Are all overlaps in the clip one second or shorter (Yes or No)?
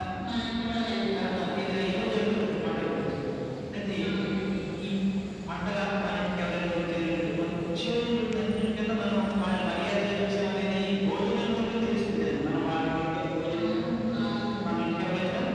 Yes